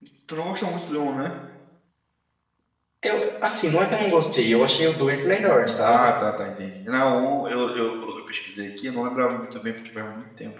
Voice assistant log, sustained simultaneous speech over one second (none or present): none